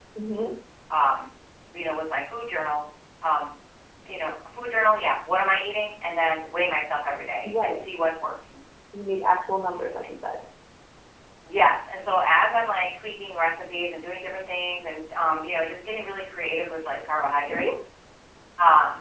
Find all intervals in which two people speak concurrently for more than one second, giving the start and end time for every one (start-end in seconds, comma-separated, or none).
none